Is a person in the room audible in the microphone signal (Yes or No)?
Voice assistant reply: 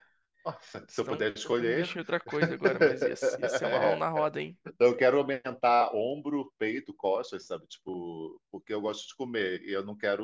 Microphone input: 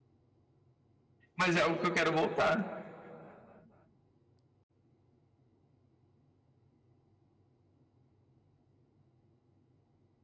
Yes